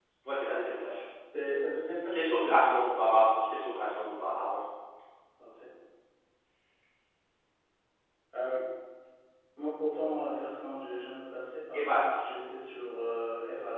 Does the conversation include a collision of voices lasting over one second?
No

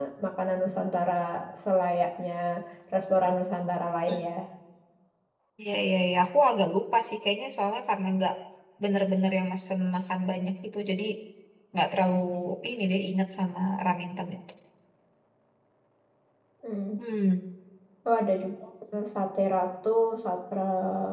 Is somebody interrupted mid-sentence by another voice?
No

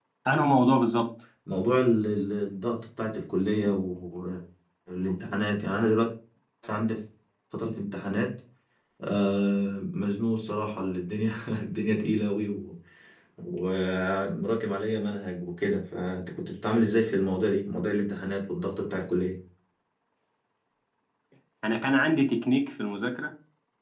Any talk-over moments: No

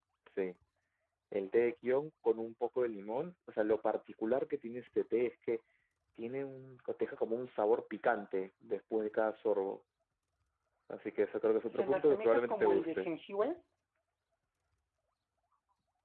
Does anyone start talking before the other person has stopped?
Yes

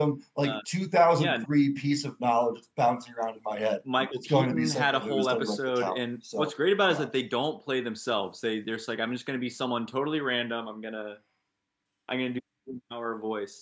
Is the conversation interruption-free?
No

